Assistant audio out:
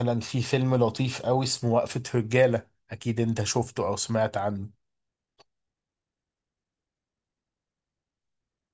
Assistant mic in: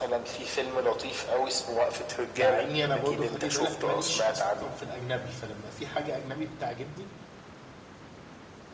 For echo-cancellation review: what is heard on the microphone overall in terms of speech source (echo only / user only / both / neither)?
both